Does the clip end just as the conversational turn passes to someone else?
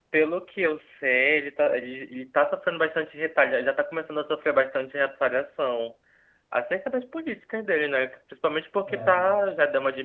No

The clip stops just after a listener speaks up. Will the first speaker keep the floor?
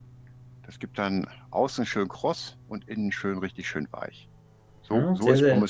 No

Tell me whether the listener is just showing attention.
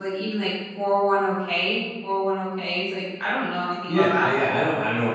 No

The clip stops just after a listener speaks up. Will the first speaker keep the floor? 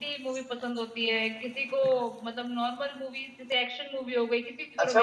No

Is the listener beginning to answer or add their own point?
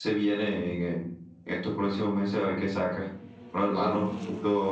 No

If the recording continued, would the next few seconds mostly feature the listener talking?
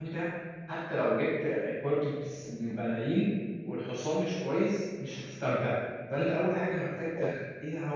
No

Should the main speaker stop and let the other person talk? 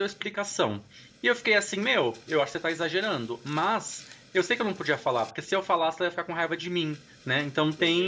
No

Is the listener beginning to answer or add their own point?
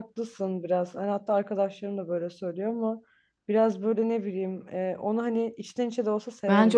Yes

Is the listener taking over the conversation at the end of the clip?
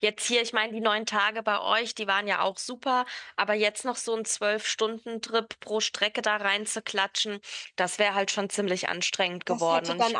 Yes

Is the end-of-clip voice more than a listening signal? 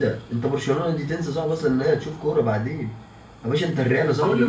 Yes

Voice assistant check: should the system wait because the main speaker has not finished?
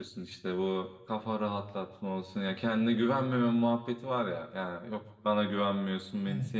Yes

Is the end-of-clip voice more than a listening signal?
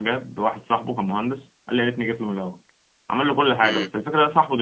No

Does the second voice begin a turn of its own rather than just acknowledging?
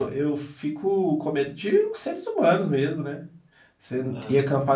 No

